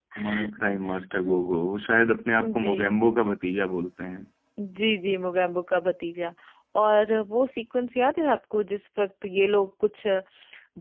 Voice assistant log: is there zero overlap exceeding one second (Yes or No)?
Yes